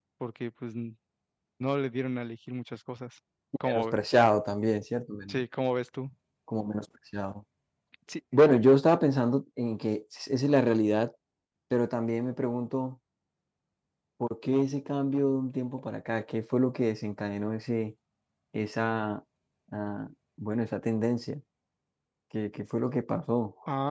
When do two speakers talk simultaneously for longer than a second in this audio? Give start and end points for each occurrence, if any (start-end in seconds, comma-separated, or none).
none